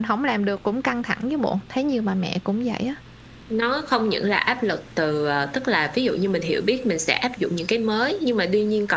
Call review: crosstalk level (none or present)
none